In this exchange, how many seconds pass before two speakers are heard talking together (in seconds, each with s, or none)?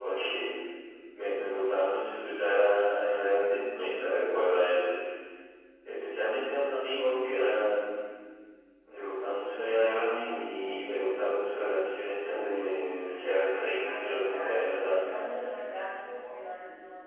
13.8 s